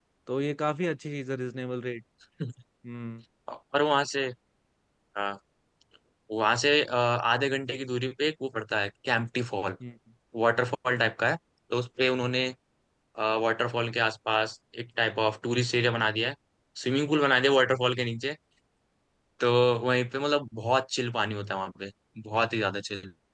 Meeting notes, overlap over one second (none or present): none